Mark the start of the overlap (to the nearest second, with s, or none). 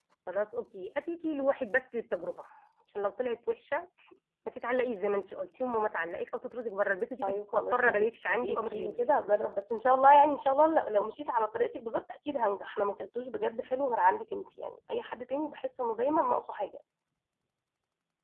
7 s